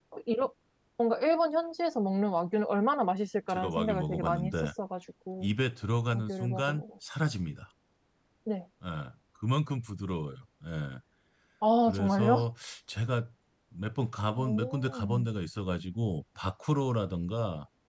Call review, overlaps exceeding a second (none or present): present